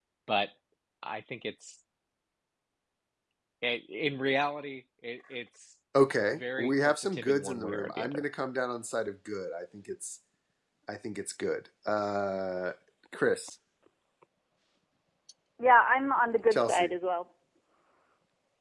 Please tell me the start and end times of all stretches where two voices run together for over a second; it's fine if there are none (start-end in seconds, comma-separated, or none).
6.6-8.2